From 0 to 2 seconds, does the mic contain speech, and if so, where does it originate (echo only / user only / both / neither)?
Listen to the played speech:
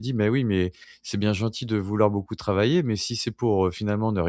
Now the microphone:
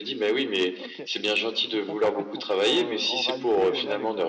both